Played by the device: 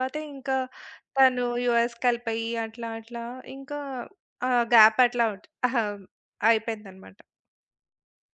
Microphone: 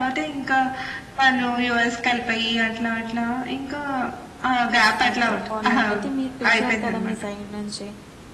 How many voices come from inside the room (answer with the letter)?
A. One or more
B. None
A